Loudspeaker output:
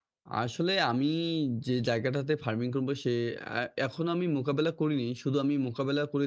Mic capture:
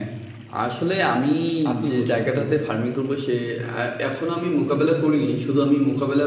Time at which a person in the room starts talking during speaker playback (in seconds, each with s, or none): 1.7 s